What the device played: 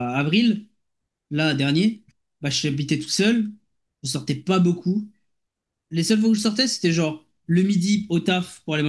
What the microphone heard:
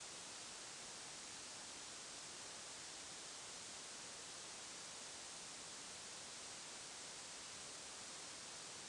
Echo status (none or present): none